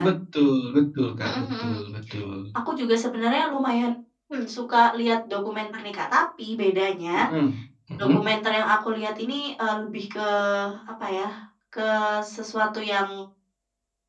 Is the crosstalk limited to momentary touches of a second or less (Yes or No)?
Yes